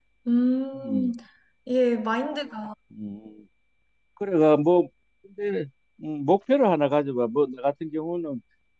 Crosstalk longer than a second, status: none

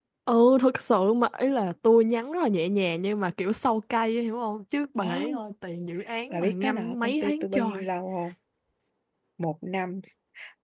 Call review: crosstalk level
present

